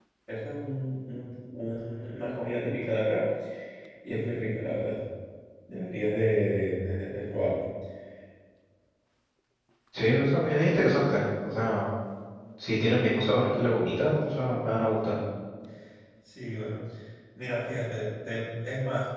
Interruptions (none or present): none